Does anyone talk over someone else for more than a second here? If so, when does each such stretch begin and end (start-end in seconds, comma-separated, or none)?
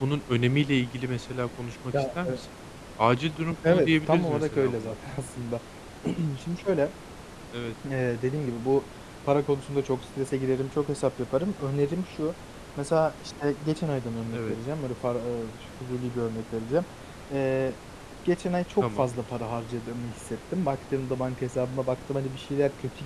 3.7-4.9